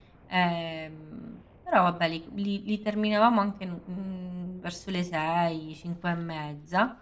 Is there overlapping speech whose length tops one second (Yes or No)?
No